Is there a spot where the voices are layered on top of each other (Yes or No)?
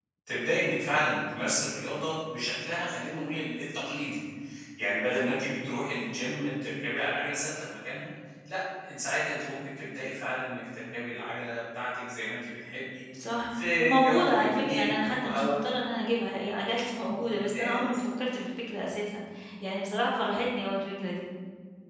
Yes